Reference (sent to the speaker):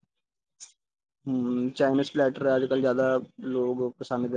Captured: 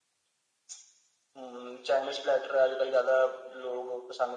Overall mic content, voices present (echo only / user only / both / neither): echo only